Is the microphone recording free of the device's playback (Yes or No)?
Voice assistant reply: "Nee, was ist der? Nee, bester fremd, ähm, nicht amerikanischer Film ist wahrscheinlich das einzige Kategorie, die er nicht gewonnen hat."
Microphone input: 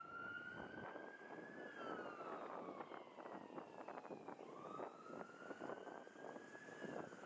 Yes